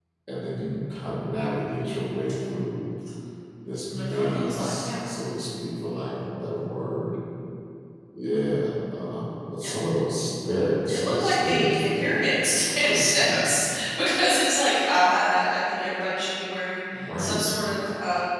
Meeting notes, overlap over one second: present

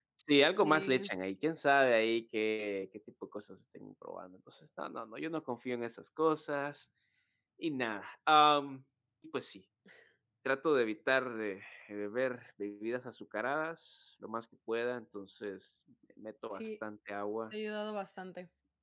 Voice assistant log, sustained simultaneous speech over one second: none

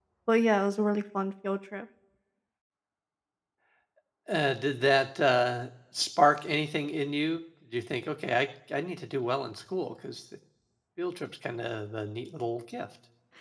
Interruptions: none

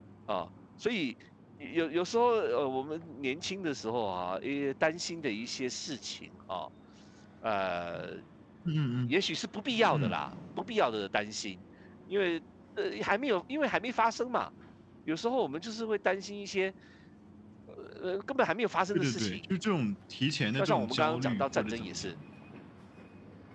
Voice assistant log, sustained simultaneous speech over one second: present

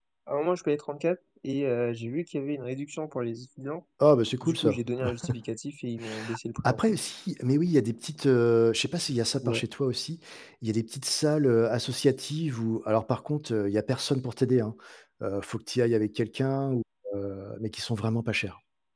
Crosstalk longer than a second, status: none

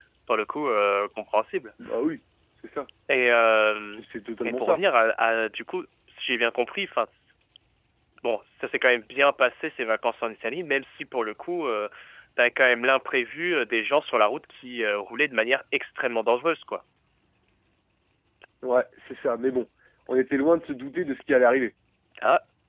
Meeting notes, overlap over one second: none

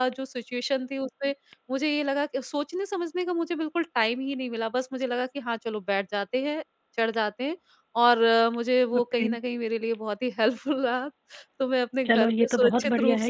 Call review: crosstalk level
present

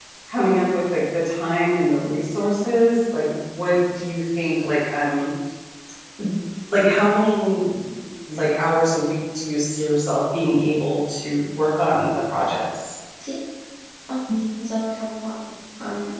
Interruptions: none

